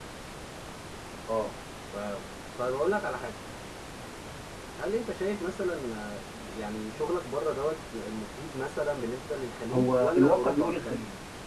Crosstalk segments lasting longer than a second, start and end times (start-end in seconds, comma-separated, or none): 9.7-10.9